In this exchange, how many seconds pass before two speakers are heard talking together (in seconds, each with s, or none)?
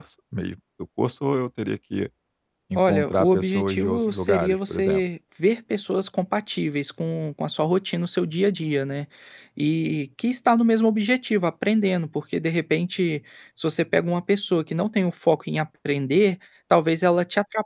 2.8 s